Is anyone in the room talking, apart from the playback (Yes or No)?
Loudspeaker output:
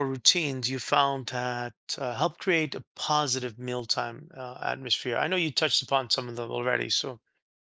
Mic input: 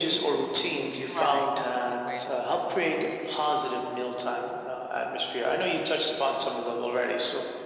Yes